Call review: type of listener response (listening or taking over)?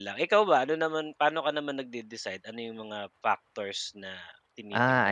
taking over